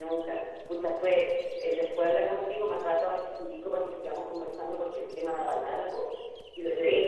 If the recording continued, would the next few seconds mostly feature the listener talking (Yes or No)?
No